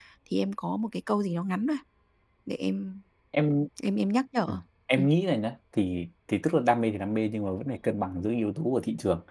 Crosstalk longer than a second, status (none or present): none